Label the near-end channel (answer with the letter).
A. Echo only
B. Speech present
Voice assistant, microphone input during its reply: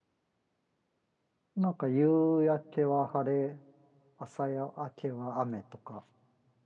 B